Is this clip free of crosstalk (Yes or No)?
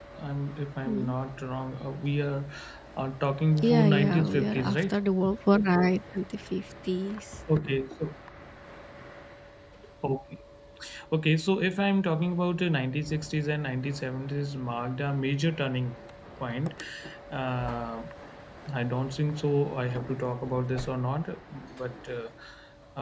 No